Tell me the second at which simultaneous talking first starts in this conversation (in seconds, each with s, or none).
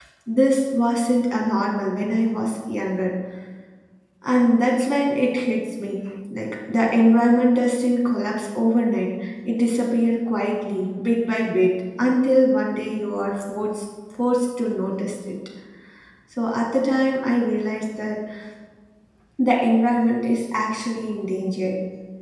none